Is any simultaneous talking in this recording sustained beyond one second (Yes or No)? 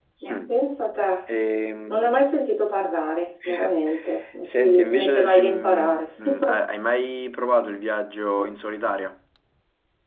Yes